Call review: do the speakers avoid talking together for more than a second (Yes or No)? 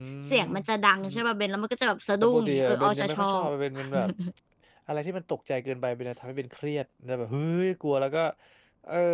No